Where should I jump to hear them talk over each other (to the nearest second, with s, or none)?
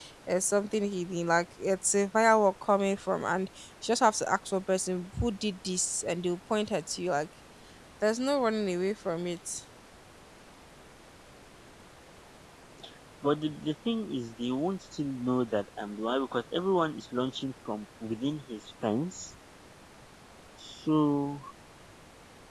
none